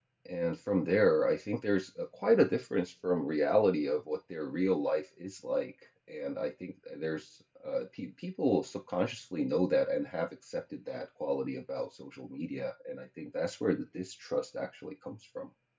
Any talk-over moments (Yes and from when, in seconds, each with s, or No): No